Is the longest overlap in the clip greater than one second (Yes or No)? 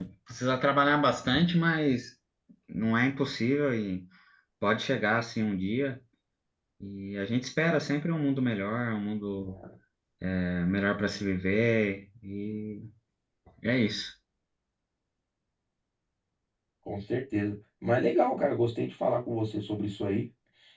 No